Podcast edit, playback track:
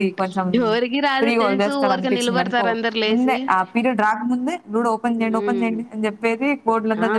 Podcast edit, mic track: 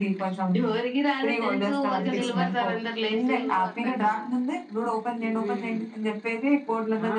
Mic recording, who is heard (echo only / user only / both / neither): both